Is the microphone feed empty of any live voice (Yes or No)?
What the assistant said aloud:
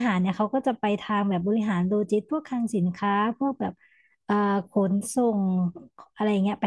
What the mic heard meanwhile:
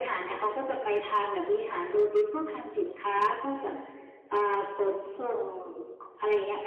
Yes